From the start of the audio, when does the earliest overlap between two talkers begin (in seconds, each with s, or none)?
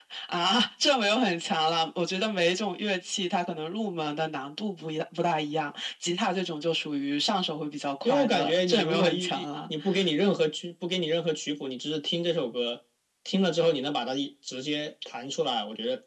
8.0 s